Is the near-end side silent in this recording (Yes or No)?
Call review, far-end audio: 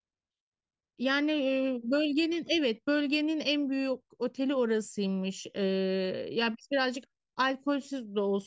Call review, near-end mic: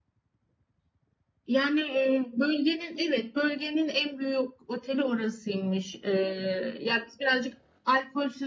Yes